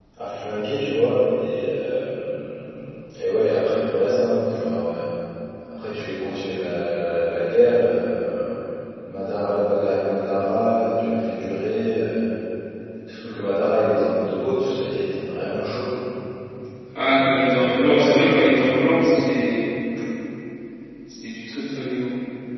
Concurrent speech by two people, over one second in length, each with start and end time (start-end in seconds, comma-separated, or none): 17.0-19.3